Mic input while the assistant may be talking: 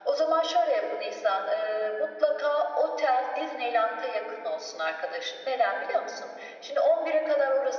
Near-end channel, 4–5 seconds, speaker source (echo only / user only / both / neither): echo only